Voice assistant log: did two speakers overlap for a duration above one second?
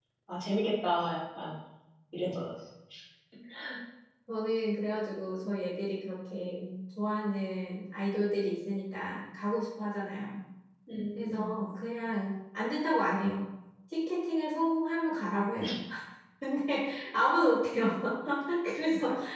No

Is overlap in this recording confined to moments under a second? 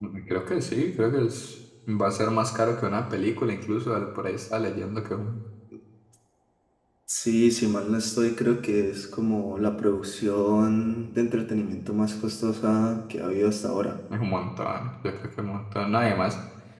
Yes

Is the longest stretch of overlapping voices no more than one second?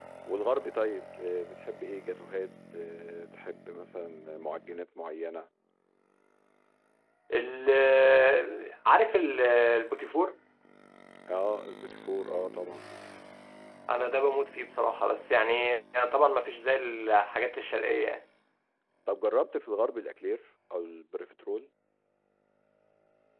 Yes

